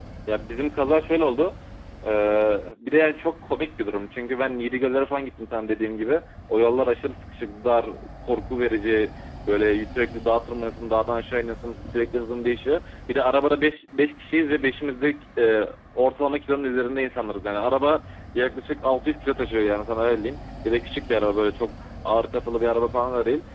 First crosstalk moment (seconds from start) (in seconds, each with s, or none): none